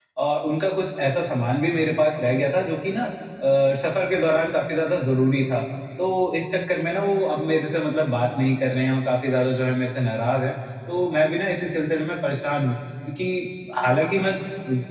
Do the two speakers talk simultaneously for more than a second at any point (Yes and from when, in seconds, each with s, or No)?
No